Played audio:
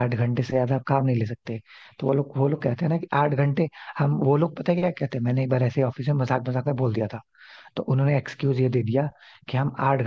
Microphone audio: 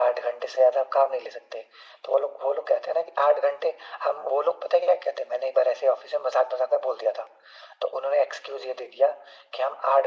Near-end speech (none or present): none